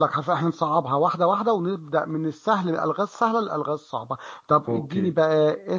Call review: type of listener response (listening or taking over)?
listening